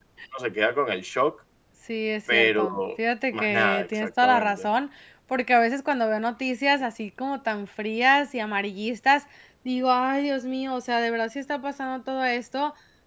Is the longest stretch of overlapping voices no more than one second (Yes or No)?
No